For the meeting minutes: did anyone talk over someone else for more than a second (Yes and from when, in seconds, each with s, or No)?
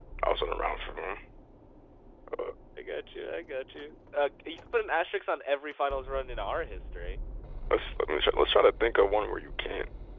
No